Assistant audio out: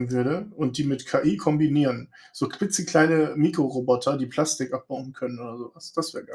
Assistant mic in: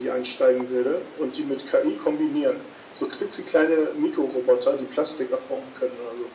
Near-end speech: none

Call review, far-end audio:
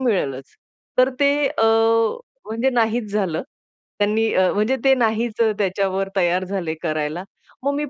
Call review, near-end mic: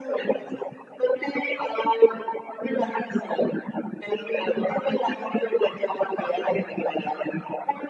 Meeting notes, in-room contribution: none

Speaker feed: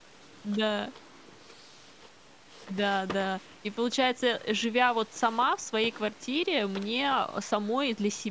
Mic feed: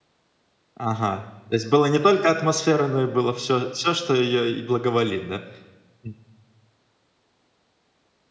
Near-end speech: present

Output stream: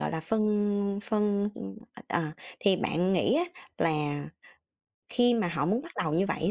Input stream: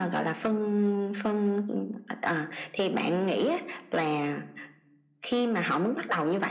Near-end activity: none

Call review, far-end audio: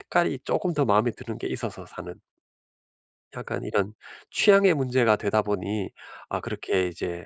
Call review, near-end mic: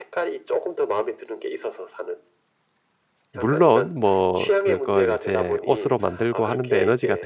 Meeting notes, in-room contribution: present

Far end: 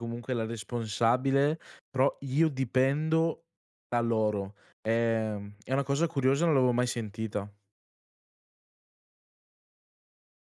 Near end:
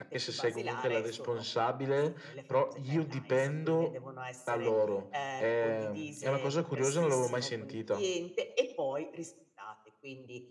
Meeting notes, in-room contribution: present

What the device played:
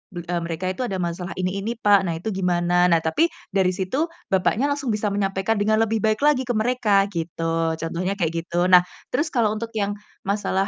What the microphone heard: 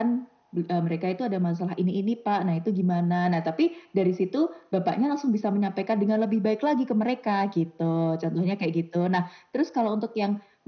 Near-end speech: none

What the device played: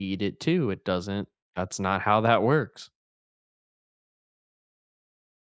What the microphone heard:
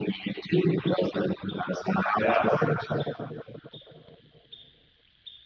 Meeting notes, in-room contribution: present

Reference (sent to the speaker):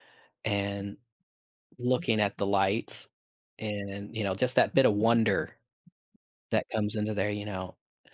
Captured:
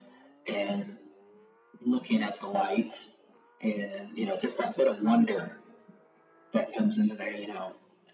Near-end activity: none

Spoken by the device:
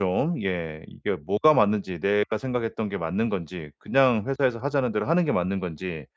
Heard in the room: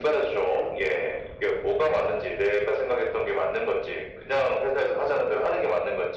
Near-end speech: none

